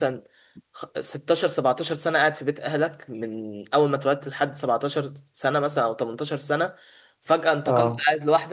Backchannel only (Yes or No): Yes